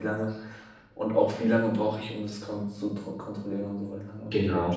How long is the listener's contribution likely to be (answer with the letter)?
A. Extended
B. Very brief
A